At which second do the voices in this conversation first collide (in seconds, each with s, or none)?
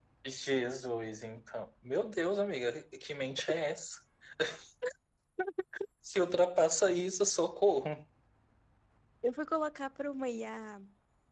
none